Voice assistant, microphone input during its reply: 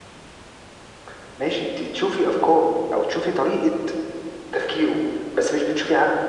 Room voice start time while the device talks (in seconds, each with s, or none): none